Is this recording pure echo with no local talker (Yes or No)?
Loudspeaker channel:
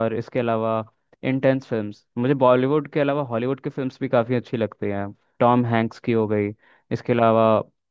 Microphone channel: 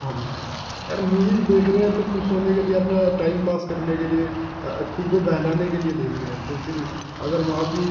No